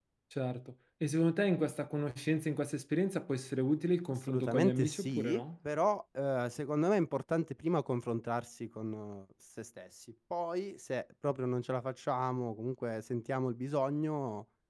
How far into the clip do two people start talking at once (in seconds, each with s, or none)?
4.1 s